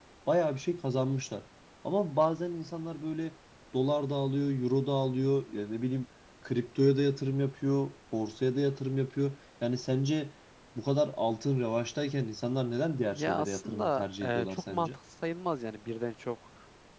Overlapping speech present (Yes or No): Yes